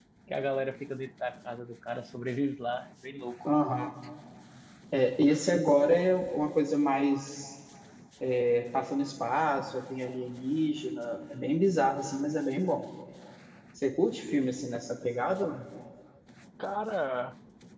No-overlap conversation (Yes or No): Yes